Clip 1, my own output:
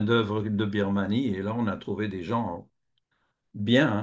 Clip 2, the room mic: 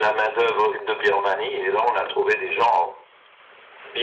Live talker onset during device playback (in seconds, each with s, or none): none